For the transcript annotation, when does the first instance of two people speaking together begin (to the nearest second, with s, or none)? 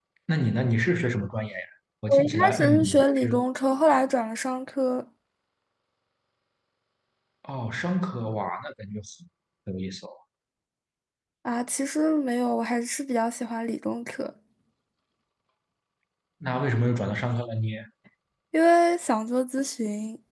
2 s